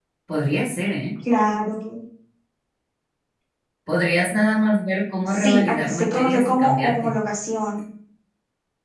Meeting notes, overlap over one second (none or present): present